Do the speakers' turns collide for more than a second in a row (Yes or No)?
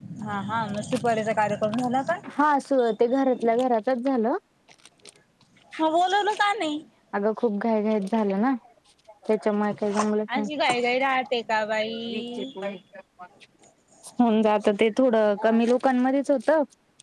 No